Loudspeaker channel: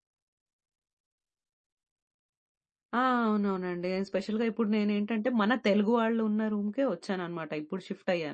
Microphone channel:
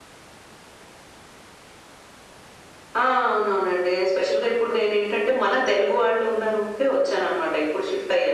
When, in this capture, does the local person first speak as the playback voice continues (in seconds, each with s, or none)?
none